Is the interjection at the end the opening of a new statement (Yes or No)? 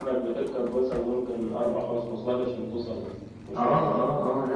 Yes